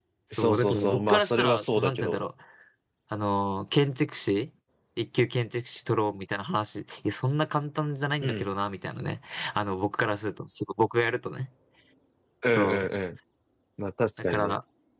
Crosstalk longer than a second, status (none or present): present